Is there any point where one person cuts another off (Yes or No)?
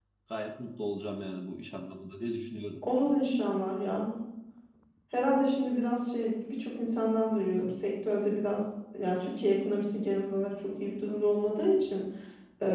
No